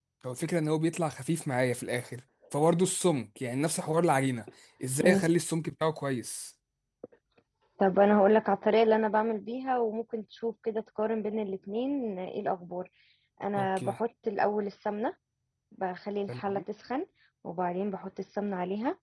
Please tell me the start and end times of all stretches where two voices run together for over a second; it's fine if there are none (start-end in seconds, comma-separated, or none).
none